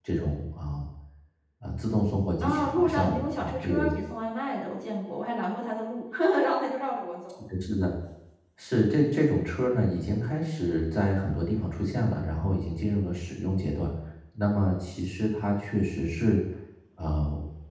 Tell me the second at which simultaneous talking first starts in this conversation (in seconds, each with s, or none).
2.4 s